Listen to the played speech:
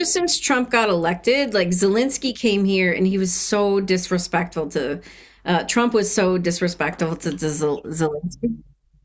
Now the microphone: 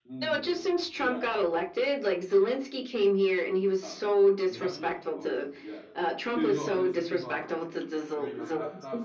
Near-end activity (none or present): present